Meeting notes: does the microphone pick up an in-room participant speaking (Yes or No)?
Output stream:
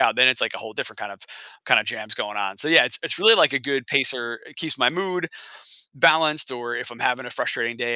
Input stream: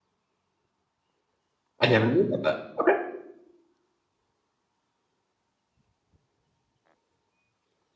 Yes